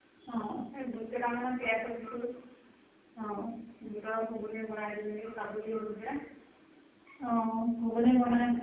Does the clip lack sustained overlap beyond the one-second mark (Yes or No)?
Yes